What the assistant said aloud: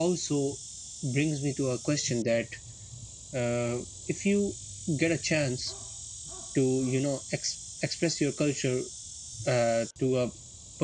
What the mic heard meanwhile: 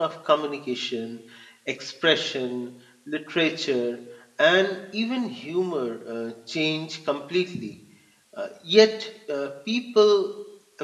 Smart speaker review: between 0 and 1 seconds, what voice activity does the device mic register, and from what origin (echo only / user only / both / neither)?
user only